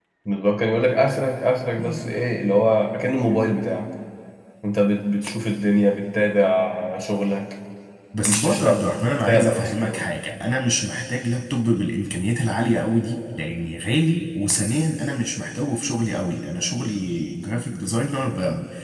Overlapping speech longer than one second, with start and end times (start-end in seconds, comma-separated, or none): 8.2-10.1